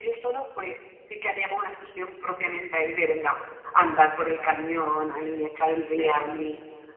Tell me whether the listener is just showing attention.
Yes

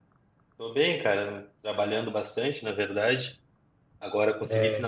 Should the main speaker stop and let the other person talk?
No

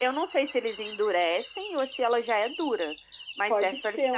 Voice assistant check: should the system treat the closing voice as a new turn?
Yes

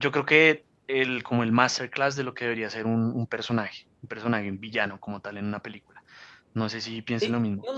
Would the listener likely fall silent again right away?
No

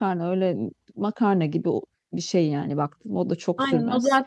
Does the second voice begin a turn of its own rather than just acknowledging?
Yes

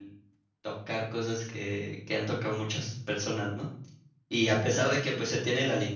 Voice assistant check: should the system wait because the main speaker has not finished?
Yes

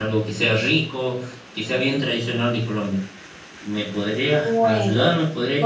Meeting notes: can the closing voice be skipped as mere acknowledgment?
No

